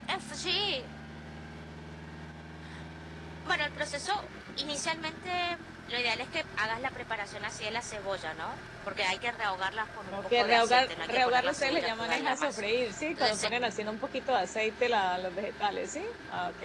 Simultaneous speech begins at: 10 s

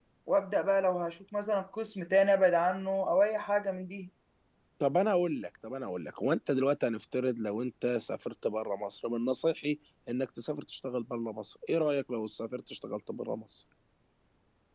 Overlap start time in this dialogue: none

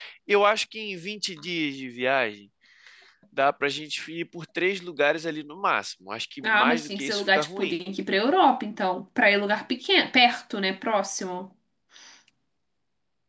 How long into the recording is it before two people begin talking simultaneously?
6 s

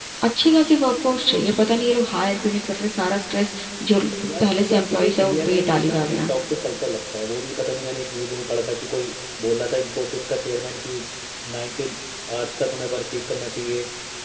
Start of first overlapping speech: 4 s

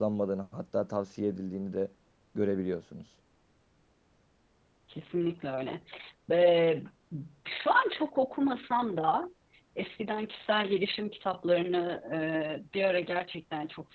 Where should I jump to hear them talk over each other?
none

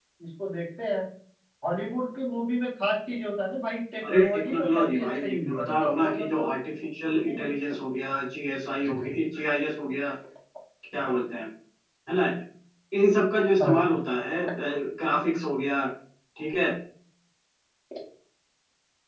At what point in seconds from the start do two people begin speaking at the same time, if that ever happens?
4 s

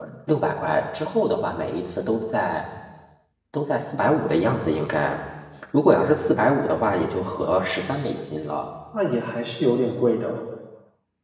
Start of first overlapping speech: none

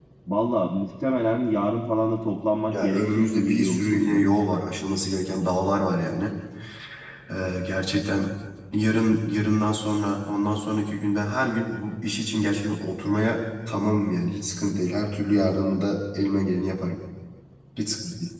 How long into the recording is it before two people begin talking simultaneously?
3 s

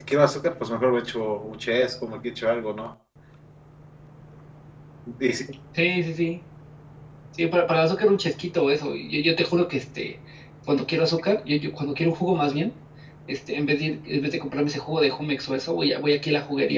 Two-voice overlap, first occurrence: none

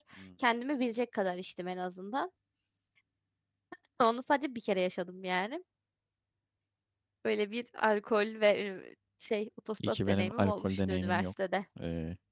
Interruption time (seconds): 10 s

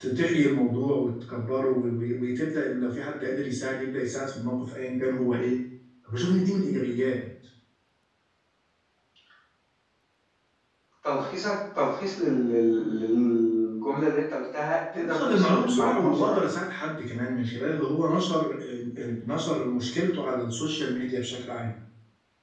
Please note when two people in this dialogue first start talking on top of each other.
15 s

